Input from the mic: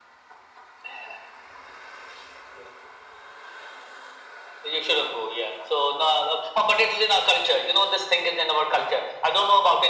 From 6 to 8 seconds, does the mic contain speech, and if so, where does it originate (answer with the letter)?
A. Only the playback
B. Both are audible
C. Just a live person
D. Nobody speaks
A